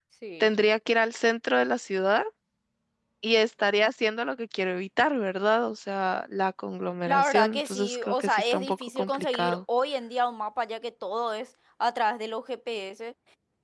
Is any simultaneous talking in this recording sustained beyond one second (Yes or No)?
Yes